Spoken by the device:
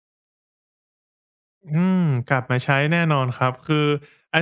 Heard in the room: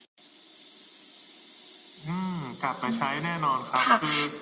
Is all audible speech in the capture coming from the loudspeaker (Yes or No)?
No